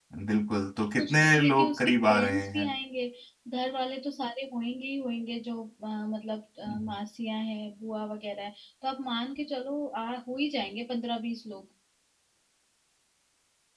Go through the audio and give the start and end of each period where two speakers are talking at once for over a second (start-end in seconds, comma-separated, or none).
1.0-2.6